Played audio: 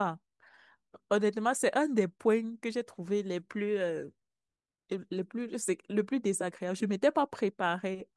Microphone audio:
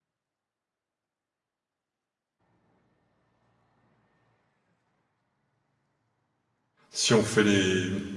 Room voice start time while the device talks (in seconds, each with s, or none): 6.9 s